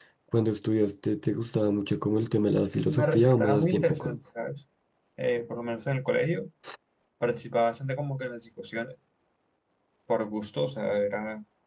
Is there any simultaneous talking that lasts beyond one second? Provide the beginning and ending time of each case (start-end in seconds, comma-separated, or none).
2.9-4.2